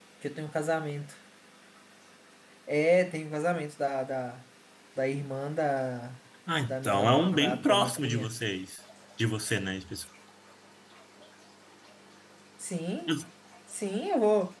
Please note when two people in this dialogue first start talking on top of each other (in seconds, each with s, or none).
6.6 s